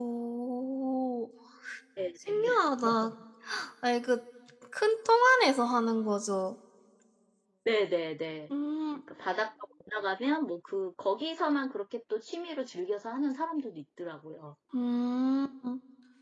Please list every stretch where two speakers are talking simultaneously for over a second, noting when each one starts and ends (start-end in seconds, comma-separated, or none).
none